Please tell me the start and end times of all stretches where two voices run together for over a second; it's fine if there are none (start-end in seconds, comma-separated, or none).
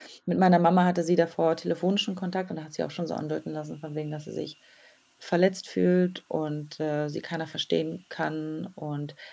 none